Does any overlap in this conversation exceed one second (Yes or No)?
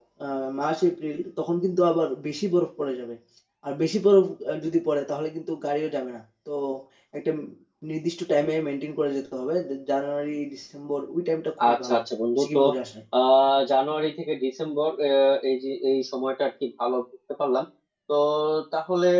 No